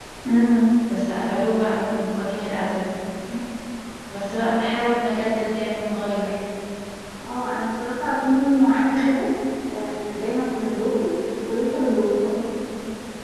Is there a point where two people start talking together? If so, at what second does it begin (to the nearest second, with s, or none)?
none